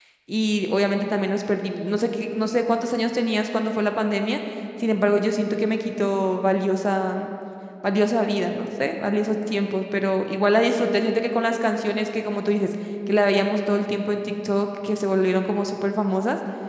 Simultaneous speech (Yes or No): No